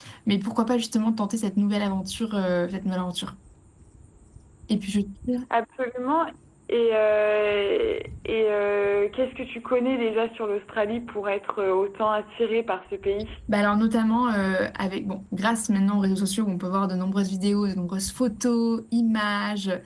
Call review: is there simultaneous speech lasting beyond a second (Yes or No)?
No